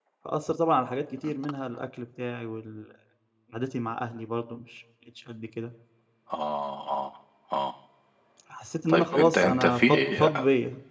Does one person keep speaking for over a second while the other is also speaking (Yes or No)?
Yes